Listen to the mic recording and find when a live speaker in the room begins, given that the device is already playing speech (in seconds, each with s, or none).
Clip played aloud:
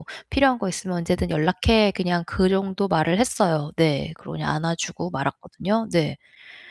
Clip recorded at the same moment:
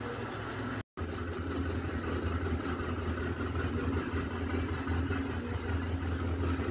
none